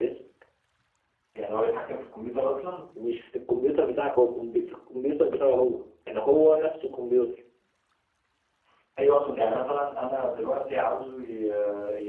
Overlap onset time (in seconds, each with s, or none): none